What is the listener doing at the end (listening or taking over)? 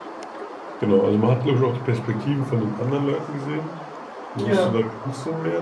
listening